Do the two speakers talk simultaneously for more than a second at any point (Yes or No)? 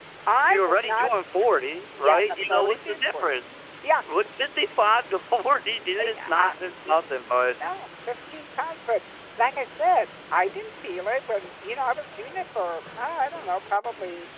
Yes